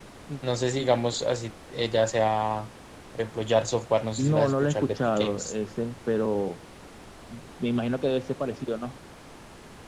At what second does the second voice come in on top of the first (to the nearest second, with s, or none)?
4 s